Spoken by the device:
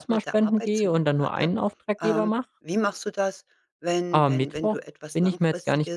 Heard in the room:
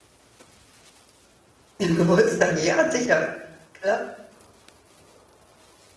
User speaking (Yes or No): Yes